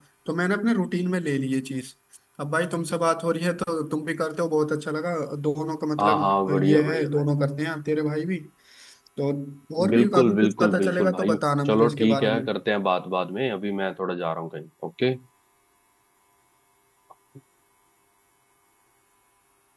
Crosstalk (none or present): present